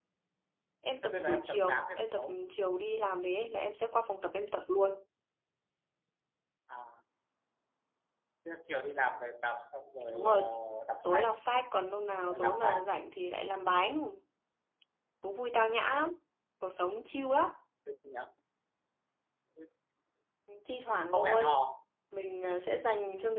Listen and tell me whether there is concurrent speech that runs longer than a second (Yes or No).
Yes